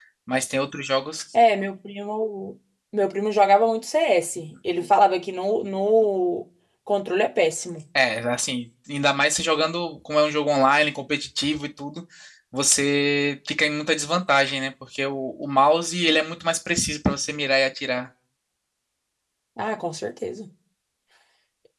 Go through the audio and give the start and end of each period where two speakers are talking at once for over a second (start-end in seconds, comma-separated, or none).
none